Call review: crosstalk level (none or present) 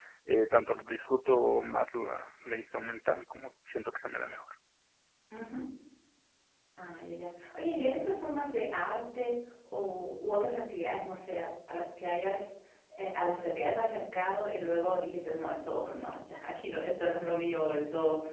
none